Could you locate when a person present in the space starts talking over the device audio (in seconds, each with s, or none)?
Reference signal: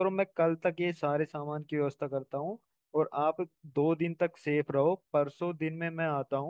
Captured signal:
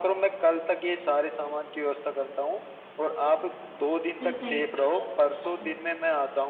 4.2 s